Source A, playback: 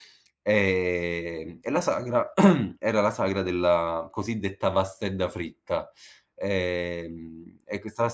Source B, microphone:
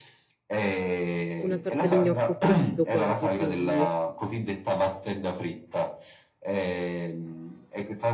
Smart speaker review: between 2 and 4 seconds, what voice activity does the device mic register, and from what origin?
both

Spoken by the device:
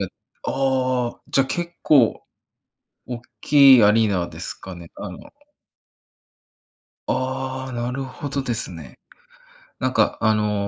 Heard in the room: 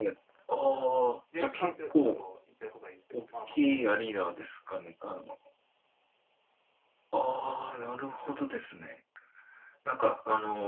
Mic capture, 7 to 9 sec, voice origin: echo only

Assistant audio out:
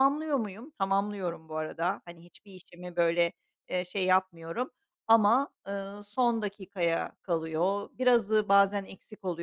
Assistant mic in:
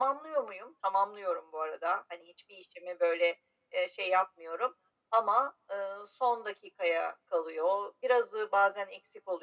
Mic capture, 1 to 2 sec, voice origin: echo only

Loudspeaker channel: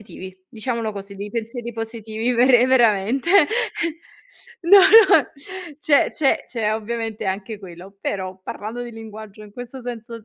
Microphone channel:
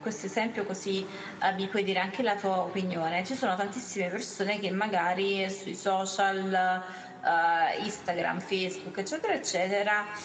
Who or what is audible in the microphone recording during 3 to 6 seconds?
user only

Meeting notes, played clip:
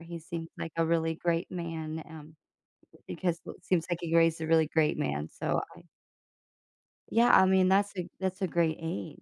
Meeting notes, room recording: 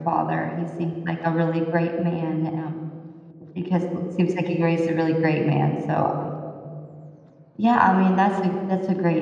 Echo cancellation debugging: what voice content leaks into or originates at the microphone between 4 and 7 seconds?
echo only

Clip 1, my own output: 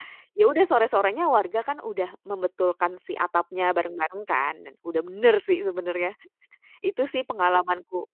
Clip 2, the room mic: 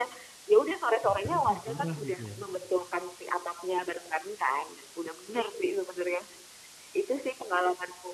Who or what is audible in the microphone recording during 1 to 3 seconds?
both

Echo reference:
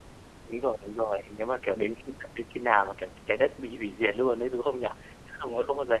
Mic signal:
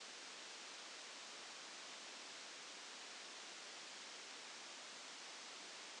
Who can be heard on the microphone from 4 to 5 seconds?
neither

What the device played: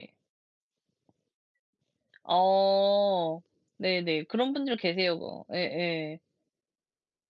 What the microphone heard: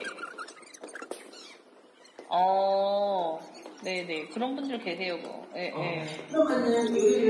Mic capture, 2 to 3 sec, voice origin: echo only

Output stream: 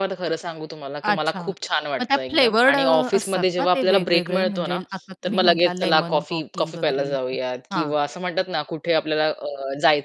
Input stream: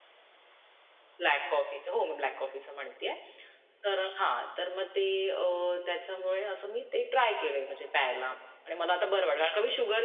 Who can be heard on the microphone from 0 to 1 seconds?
neither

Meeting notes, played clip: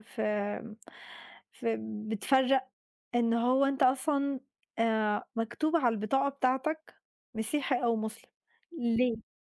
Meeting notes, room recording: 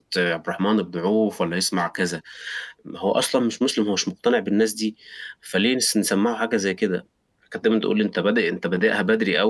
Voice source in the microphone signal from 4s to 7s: user only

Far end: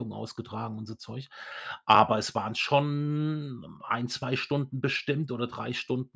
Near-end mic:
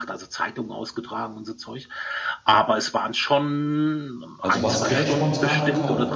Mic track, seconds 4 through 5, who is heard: both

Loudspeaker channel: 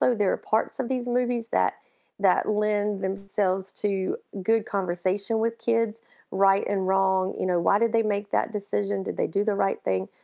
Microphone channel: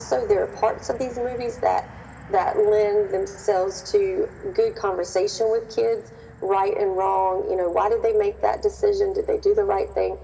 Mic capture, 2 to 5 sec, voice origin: echo only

